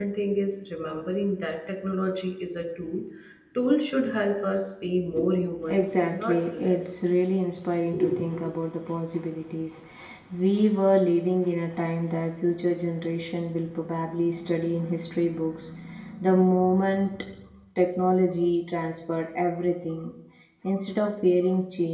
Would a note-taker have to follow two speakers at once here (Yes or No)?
Yes